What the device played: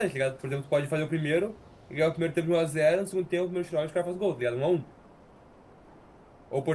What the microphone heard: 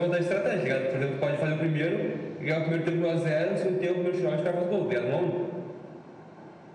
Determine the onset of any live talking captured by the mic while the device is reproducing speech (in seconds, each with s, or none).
none